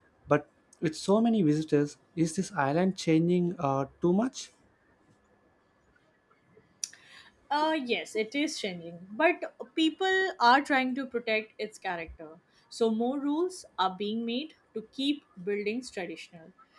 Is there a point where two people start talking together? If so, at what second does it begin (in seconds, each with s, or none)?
none